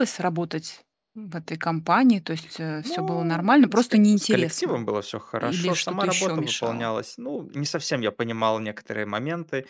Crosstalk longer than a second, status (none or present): present